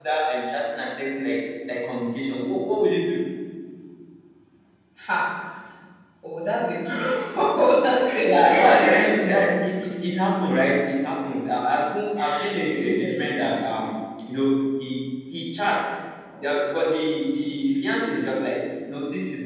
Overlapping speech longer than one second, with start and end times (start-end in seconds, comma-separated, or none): 8.2-9.6